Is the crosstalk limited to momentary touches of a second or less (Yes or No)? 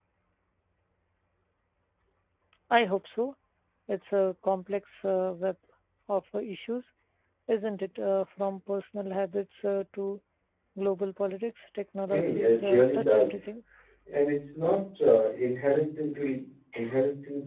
No